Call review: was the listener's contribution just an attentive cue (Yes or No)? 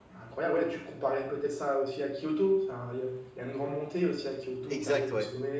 No